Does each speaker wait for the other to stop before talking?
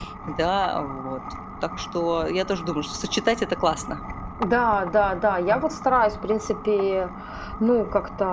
Yes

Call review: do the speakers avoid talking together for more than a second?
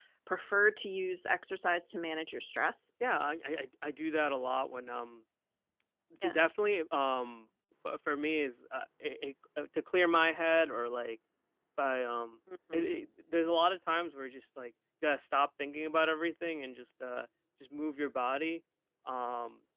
Yes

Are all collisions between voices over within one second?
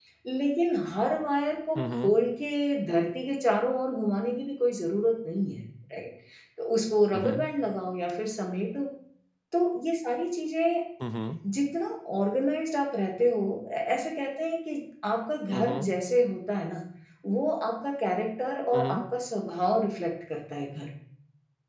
Yes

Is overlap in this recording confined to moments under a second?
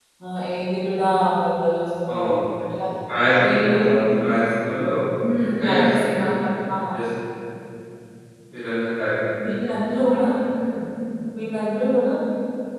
Yes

